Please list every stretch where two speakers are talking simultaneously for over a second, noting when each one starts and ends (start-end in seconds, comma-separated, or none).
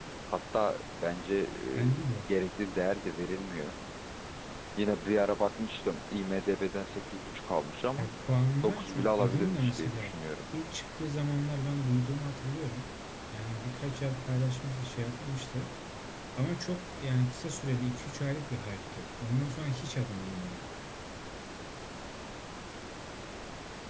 8.6-10.1